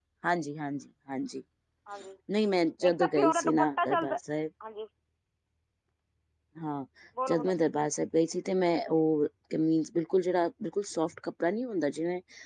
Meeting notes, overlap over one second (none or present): present